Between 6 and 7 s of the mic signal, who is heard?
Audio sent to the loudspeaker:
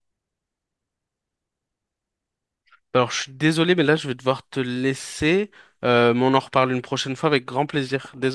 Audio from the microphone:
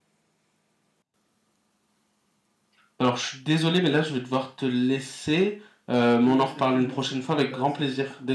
both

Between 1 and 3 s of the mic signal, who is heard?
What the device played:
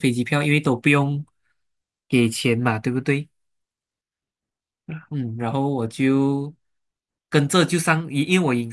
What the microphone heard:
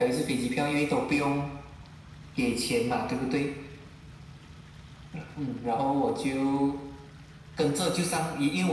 echo only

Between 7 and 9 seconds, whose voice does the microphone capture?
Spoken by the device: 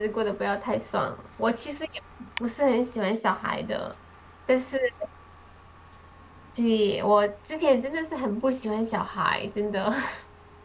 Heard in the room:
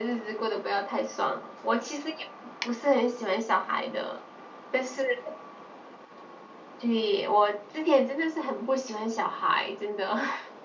echo only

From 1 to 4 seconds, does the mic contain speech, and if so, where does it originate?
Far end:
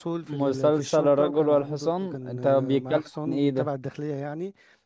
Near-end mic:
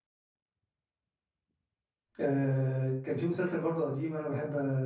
user only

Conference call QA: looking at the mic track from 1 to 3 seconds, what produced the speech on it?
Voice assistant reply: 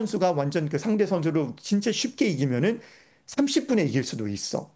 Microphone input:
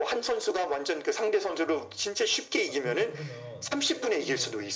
both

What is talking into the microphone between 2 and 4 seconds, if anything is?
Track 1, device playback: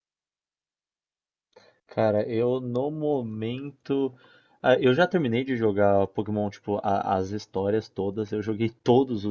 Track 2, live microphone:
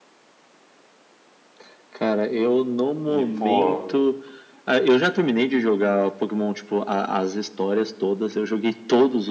both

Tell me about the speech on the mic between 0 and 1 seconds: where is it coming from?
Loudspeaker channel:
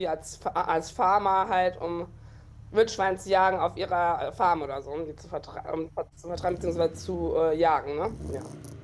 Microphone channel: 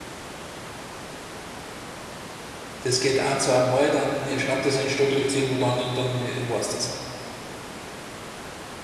neither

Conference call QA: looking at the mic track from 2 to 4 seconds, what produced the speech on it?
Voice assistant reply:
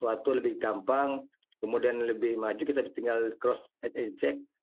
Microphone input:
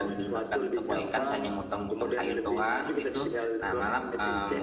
both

